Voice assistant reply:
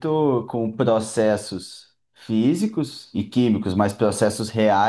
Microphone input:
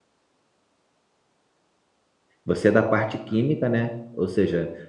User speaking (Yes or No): Yes